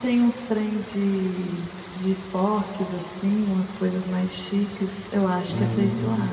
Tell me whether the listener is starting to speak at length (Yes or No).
No